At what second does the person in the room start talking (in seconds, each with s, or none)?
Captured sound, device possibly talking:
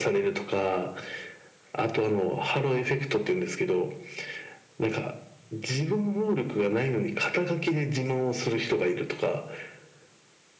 none